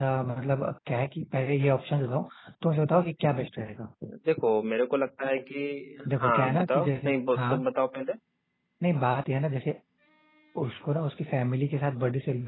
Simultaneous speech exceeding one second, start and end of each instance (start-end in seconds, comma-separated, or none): 6.2-7.6